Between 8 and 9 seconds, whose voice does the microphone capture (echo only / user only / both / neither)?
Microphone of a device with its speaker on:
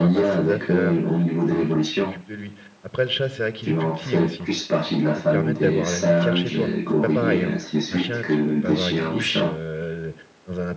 both